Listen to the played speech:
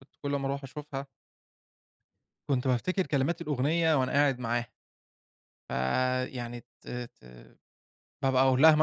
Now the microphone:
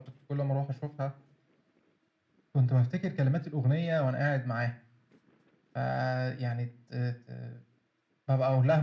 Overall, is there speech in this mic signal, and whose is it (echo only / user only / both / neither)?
echo only